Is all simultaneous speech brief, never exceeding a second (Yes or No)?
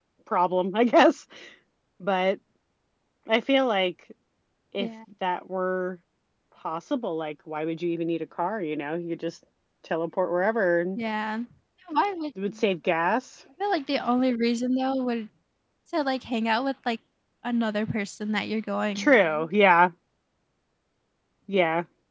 Yes